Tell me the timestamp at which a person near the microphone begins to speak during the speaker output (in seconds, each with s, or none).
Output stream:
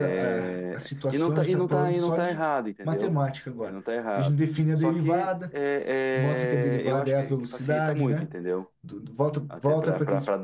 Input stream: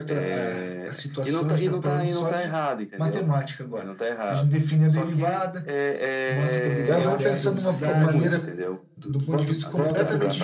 6.8 s